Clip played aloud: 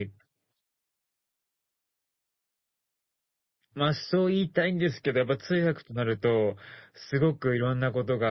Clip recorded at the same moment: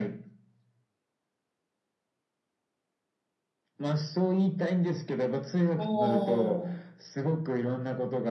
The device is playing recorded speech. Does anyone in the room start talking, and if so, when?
5.8 s

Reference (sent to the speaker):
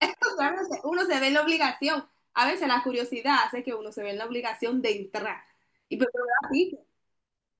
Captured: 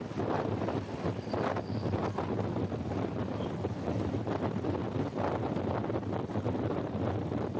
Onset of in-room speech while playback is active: none

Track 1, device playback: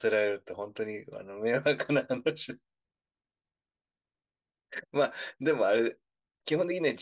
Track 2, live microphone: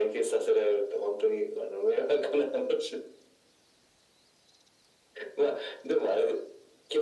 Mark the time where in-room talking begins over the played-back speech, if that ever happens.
none

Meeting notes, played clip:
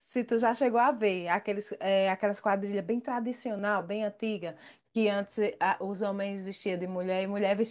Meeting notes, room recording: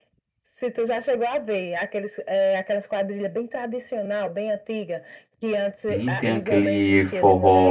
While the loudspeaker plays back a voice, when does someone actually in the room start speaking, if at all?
5.9 s

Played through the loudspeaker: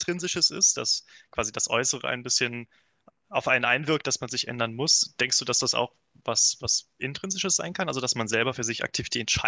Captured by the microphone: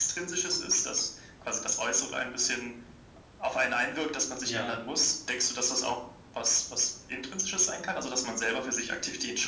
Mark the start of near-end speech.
4.4 s

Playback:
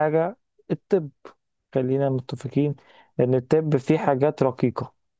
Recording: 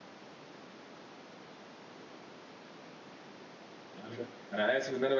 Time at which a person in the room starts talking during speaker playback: 4.0 s

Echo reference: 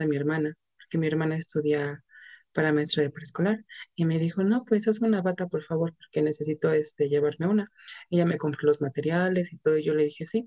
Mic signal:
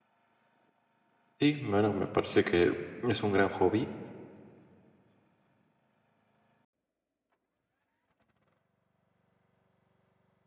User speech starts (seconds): 1.4 s

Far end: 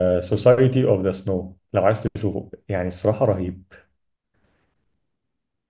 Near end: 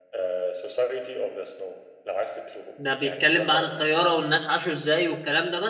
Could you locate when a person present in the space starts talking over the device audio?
2.8 s

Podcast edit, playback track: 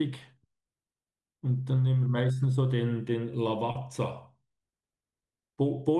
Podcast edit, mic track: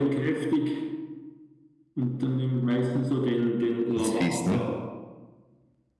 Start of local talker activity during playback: 4.0 s

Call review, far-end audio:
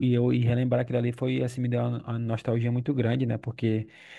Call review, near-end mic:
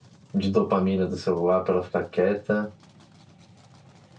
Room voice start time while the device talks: 0.3 s

